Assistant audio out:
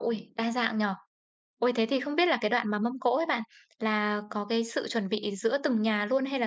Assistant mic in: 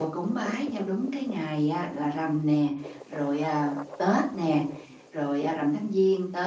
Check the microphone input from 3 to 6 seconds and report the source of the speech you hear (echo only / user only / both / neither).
user only